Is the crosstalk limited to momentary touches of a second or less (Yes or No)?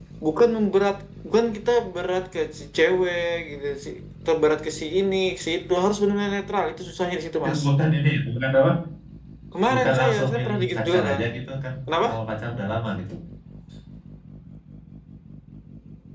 No